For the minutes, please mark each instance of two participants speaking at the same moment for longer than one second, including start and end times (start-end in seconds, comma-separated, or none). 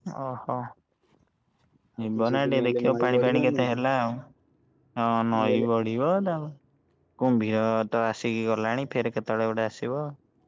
2.1-3.8